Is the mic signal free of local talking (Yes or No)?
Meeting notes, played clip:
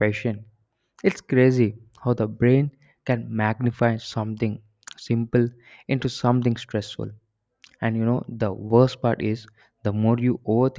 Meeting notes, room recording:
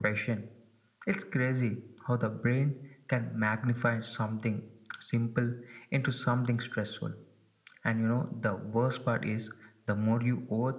Yes